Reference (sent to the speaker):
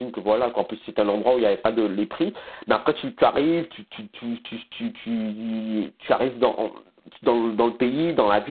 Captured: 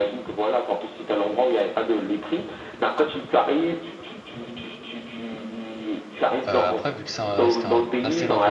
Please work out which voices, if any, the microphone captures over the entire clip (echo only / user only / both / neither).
both